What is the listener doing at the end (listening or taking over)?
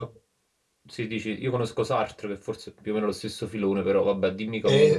taking over